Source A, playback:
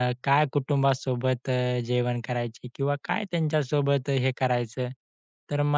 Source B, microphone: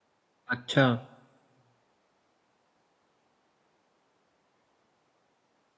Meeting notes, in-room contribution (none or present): present